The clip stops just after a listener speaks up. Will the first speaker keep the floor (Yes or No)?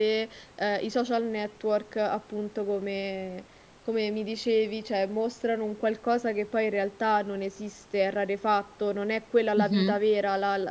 Yes